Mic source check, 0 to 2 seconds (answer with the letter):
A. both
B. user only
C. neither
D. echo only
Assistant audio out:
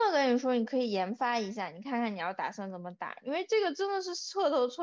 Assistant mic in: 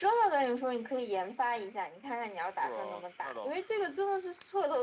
D